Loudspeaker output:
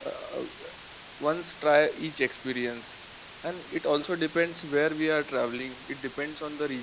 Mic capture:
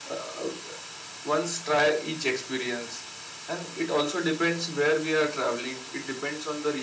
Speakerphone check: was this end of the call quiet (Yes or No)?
Yes